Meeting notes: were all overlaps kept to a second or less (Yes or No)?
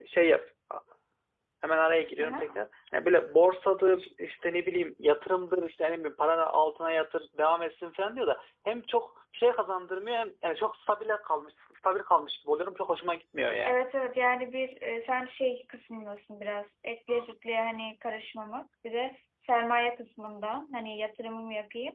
Yes